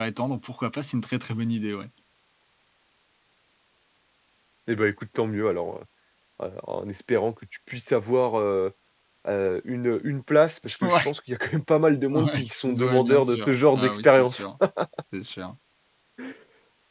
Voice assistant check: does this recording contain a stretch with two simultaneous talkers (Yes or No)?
Yes